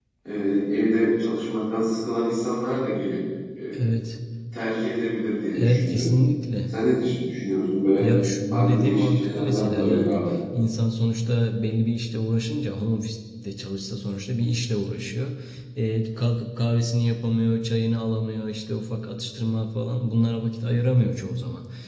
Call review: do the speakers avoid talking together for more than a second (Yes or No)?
No